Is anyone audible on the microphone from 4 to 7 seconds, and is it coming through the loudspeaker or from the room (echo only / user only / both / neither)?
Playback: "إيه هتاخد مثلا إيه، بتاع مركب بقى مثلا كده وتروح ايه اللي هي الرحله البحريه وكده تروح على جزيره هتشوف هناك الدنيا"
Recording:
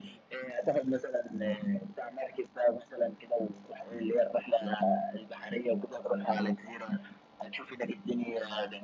echo only